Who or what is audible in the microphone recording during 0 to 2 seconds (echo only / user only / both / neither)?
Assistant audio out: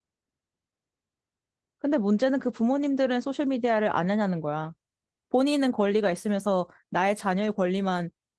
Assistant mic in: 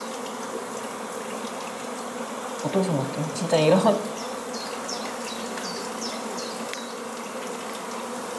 neither